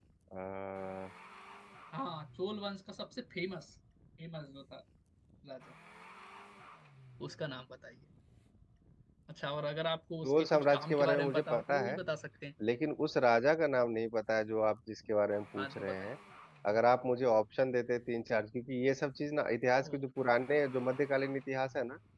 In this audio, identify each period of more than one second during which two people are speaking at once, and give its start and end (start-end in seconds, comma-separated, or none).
10.2-12.0